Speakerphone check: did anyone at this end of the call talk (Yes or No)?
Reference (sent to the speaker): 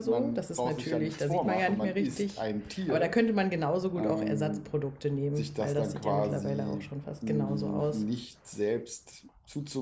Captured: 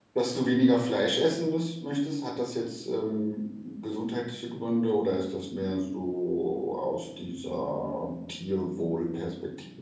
Yes